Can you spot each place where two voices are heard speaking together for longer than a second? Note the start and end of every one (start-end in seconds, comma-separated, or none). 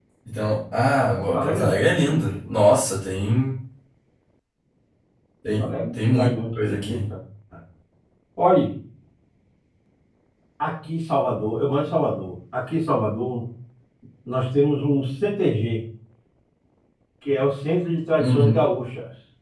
0.9-2.5, 5.6-6.9